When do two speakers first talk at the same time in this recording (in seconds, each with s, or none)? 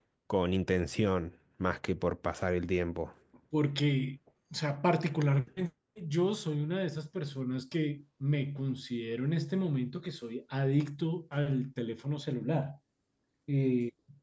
none